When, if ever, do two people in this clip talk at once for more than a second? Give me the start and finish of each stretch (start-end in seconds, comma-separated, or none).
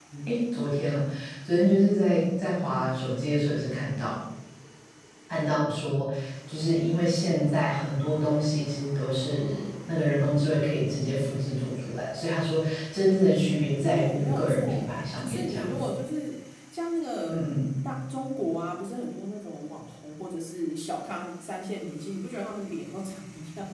13.8-15.8